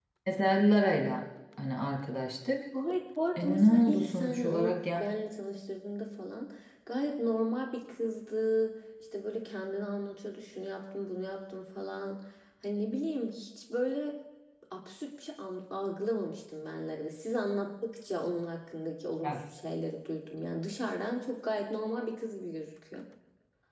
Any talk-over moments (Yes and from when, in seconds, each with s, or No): Yes, from 3.4 s